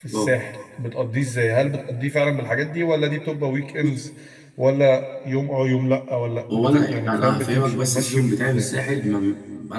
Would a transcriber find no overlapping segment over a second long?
No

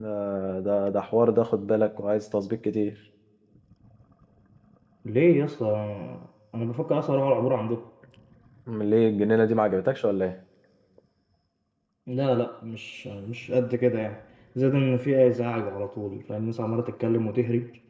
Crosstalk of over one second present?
No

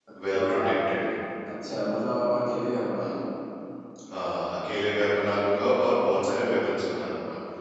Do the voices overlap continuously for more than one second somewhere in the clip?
No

